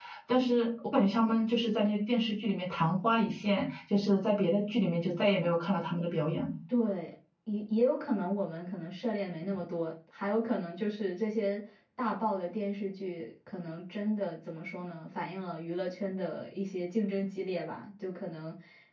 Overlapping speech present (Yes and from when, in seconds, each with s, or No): No